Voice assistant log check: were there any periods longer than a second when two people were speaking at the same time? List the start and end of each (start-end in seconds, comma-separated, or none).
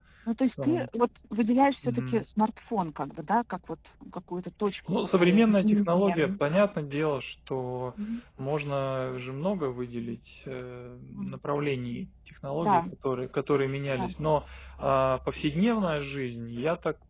4.9-6.3